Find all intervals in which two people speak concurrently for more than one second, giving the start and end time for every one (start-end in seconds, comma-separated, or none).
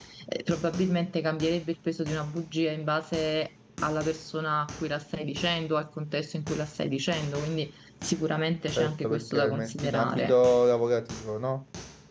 8.8-10.3